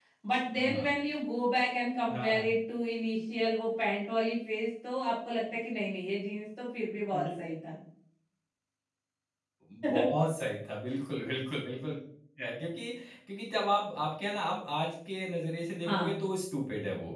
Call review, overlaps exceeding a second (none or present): none